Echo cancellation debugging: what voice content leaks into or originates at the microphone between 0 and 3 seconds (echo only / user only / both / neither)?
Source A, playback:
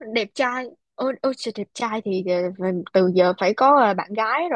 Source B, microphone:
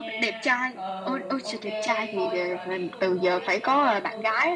both